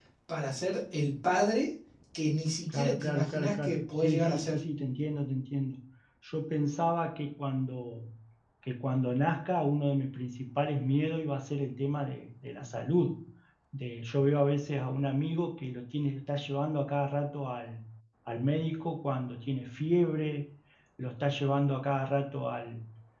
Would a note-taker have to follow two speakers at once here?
Yes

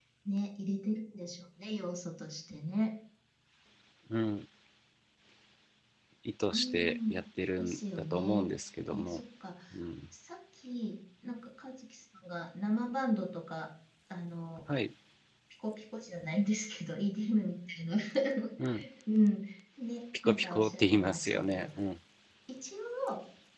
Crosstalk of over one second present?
Yes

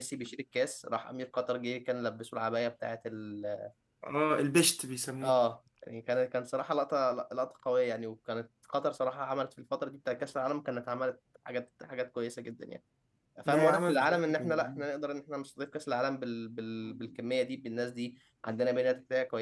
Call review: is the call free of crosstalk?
No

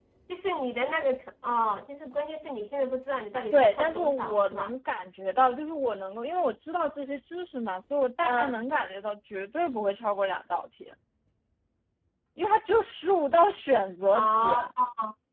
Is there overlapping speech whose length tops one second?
Yes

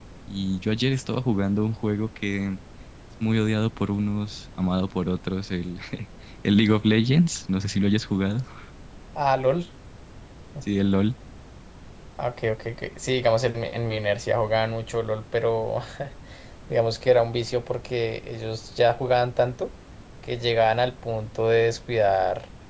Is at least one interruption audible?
No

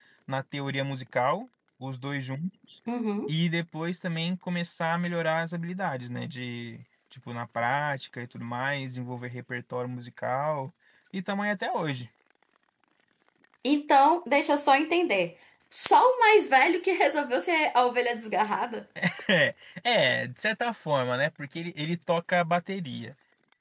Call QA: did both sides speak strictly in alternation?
Yes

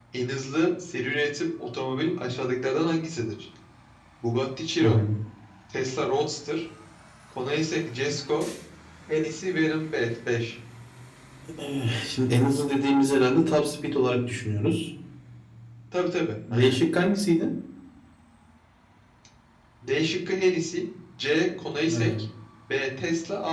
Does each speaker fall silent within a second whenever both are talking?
Yes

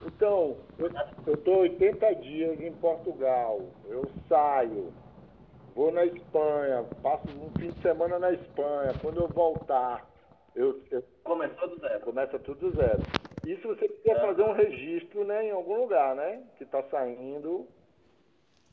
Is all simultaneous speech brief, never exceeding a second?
Yes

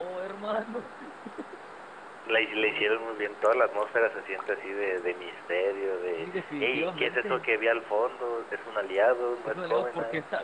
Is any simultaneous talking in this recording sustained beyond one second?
Yes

